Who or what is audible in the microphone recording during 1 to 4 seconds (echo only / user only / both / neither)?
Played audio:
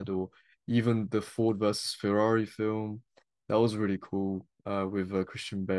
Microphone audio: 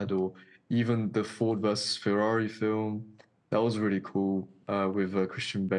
echo only